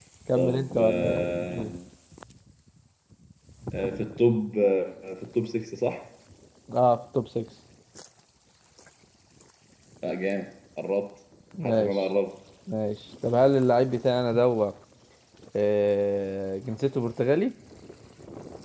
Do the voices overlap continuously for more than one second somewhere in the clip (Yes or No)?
Yes